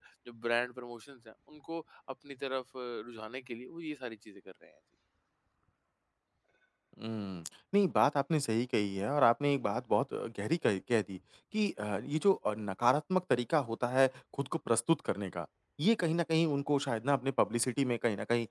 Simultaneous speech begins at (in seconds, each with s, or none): none